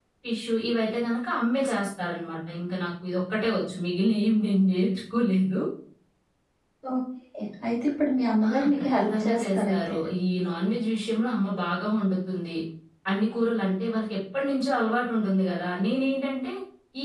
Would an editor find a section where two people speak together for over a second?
Yes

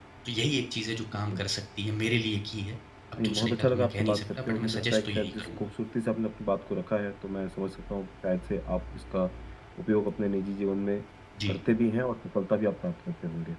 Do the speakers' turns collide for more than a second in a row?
Yes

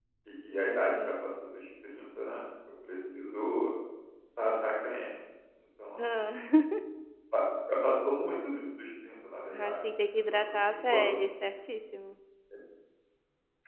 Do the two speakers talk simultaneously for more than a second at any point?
Yes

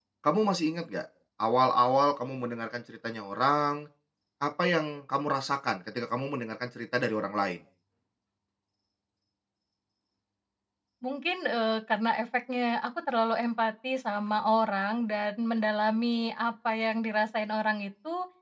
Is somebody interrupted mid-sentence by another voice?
No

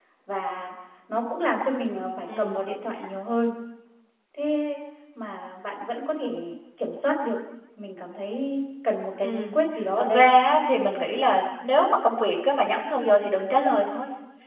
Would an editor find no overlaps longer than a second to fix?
Yes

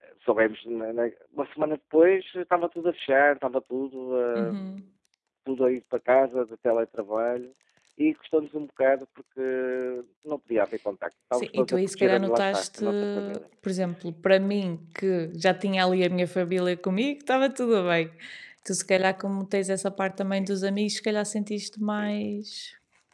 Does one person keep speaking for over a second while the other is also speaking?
Yes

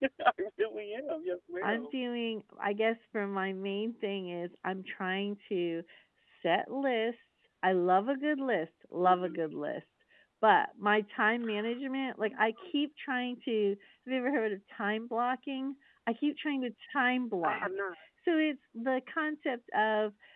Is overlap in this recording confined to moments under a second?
Yes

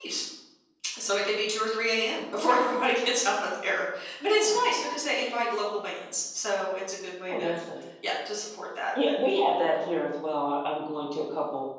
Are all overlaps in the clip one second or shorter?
Yes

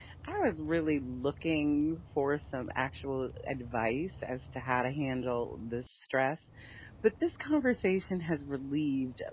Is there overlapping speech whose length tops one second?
No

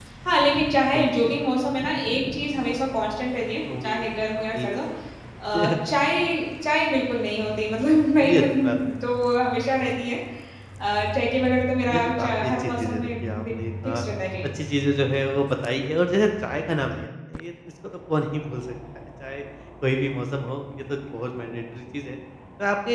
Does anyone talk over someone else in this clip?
Yes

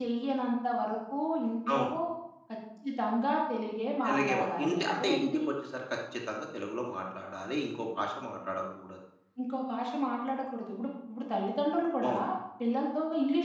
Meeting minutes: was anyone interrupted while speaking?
Yes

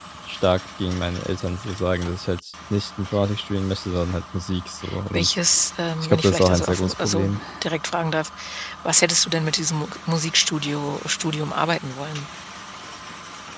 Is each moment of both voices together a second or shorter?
No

